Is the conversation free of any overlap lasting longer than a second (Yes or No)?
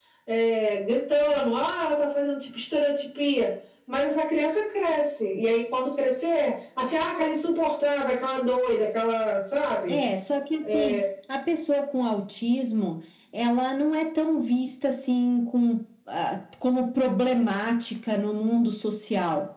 Yes